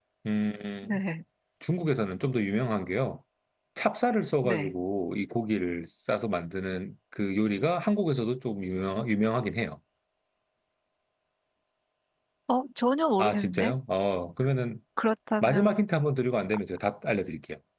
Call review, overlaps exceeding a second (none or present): none